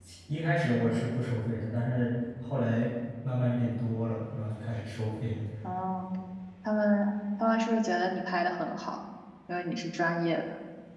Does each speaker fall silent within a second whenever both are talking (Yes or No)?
Yes